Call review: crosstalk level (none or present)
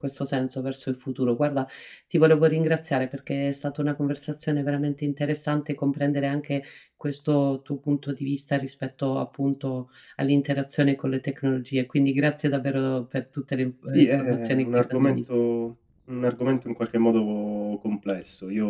present